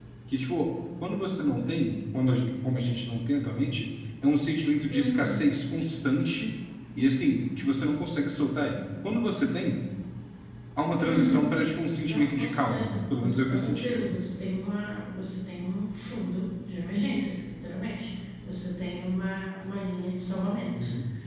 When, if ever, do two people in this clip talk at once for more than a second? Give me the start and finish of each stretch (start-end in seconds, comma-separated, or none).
12.1-14.0